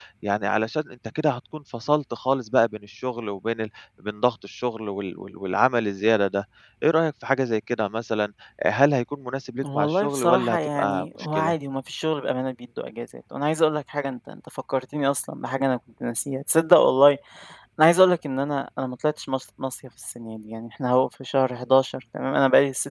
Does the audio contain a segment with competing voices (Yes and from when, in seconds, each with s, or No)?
Yes, from 9.6 s